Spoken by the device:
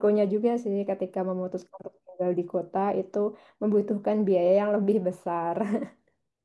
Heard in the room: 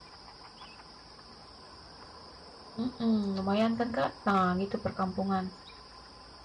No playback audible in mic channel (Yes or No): Yes